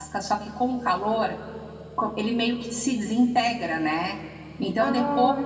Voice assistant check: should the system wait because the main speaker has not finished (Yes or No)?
Yes